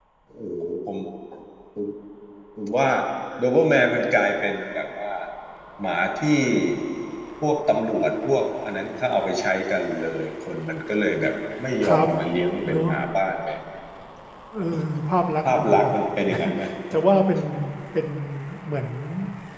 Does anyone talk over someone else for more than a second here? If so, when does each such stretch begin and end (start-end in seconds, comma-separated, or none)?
none